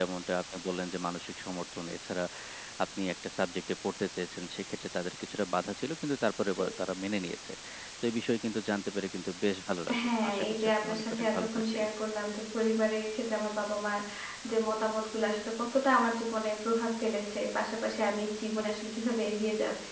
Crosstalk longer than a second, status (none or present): present